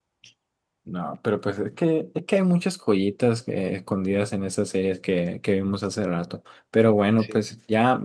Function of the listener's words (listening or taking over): listening